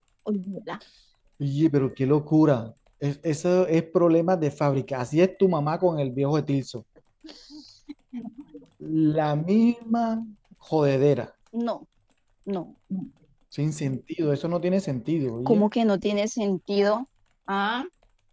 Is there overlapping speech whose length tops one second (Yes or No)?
No